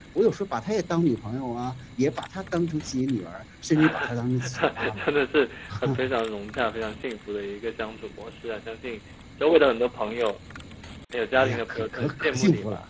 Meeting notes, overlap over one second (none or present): present